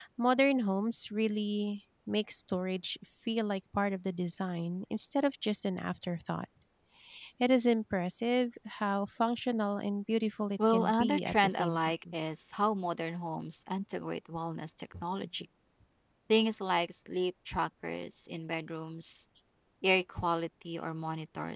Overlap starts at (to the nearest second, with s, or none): 11 s